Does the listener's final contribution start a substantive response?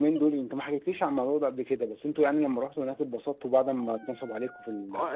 Yes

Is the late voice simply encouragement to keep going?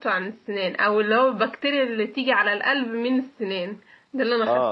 No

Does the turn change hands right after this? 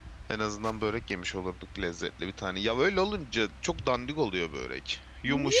No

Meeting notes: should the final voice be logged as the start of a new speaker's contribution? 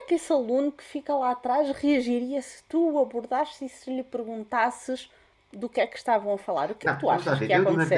Yes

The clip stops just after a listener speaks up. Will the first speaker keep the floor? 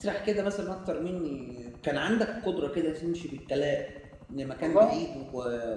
Yes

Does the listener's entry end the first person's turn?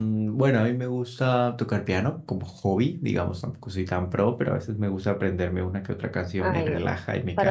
Yes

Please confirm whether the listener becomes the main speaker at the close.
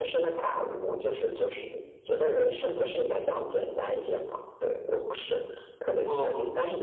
No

